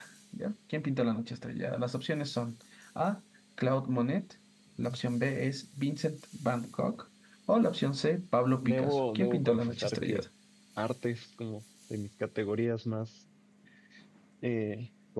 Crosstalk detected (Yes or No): Yes